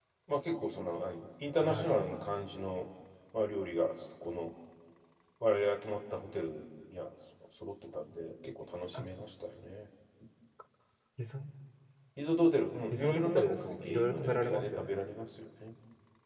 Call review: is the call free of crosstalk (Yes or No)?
No